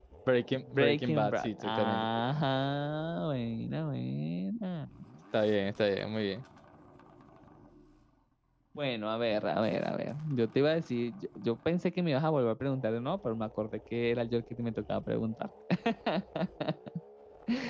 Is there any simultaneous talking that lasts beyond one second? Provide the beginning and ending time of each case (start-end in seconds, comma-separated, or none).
0.6-2.4